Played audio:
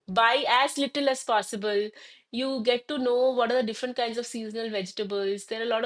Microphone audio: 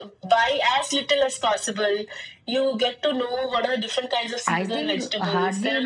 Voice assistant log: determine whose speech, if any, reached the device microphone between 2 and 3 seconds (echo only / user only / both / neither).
echo only